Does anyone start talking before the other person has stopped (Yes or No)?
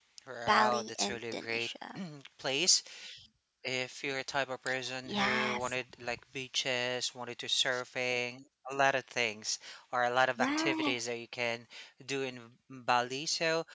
Yes